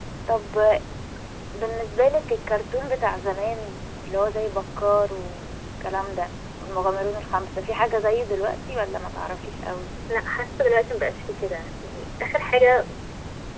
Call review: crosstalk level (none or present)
none